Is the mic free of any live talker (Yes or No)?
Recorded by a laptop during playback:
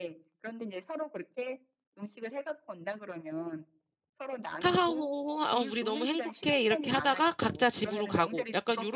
No